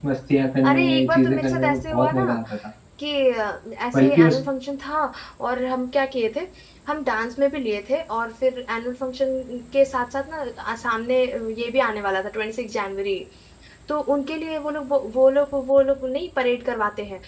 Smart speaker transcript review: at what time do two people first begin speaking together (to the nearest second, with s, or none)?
1 s